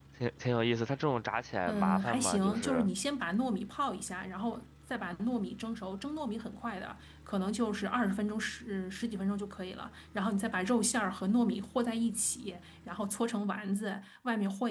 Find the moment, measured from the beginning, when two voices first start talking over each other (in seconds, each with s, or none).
1.7 s